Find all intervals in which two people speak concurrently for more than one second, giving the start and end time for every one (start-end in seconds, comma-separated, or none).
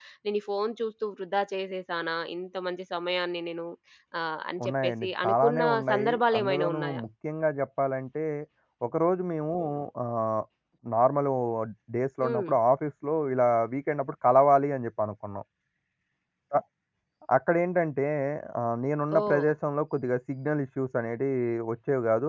4.6-7.0